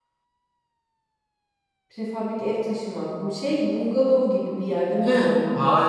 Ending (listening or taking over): taking over